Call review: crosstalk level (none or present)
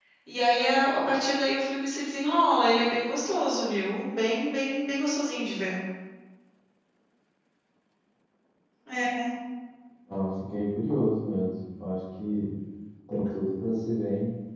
none